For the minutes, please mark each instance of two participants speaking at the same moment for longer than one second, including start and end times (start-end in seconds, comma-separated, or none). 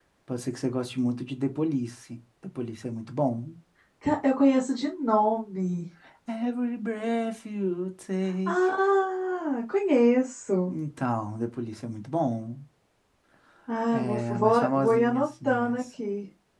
13.9-15.8